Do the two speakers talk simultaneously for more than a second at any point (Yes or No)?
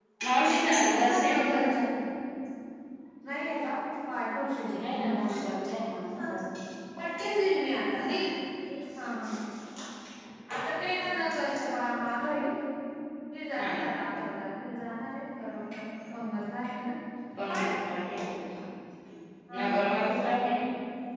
Yes